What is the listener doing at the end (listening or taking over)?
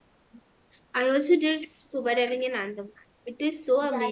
taking over